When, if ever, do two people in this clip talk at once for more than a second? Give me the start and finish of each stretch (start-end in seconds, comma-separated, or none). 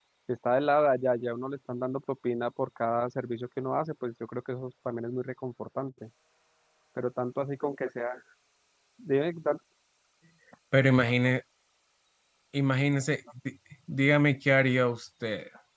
none